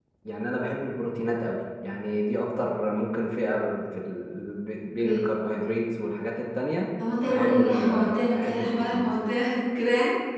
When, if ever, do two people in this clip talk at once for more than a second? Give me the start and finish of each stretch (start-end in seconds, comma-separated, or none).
7.2-9.1